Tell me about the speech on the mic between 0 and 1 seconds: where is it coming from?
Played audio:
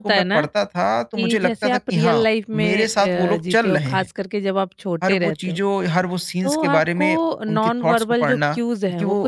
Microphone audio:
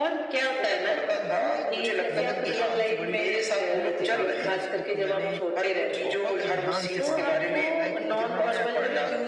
echo only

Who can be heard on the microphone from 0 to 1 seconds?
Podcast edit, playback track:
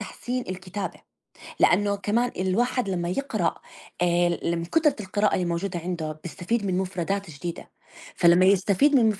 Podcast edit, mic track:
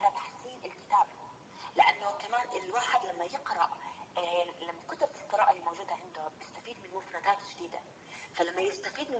echo only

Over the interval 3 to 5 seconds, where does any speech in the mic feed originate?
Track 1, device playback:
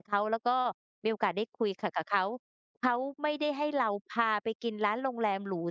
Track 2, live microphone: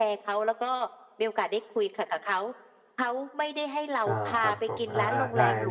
both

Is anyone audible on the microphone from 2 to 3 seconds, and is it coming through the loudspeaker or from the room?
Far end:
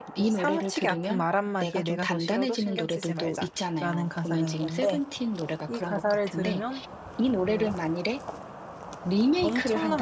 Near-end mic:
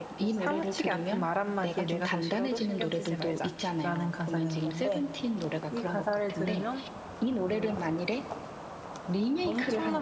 echo only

